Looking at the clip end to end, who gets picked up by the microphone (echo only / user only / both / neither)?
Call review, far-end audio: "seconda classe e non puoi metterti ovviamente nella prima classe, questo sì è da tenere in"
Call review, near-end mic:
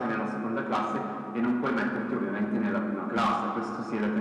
echo only